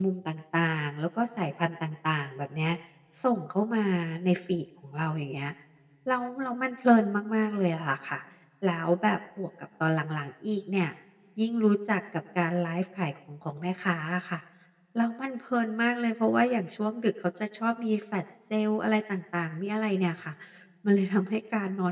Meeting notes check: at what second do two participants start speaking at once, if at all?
none

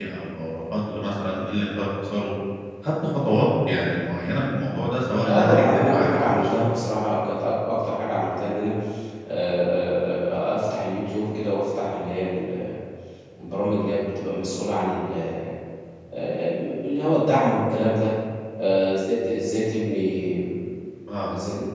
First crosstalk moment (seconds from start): 5.3 s

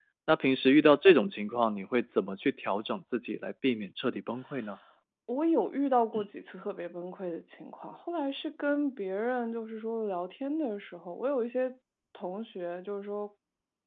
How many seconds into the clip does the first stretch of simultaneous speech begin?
none

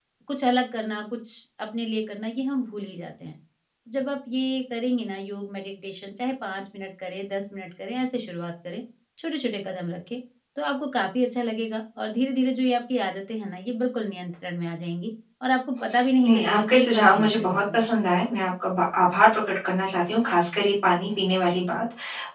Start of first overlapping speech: 16.2 s

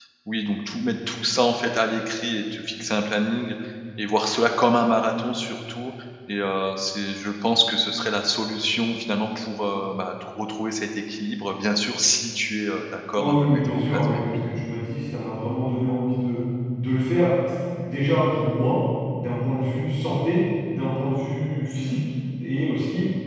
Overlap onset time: 13.2 s

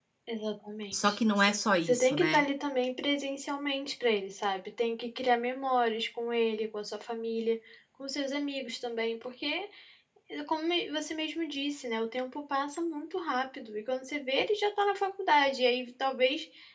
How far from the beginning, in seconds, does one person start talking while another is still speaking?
0.9 s

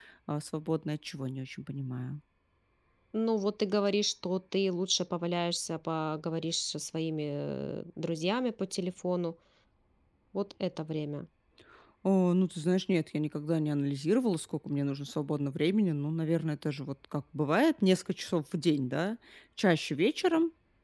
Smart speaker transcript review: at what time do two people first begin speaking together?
none

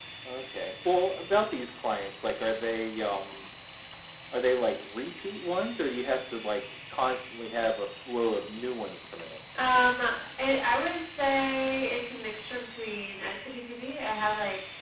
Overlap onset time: none

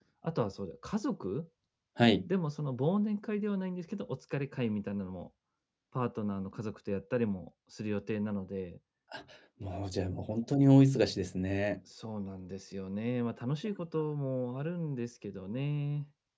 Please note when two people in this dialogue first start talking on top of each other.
none

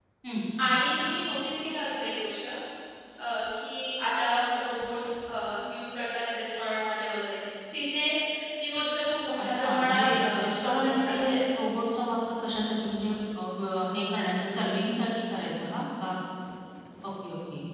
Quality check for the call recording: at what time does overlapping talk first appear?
9.4 s

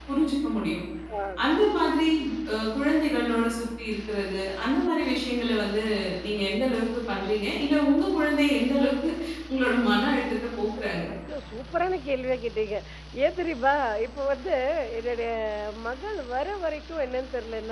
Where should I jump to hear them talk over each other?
none

